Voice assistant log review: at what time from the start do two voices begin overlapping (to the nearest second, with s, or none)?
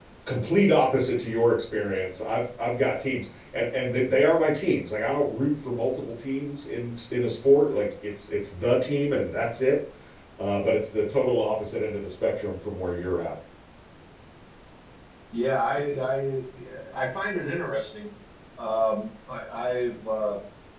none